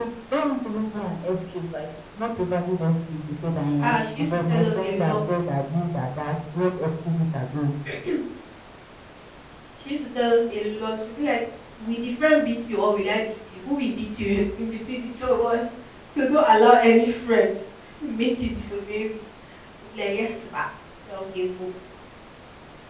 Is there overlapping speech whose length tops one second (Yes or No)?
Yes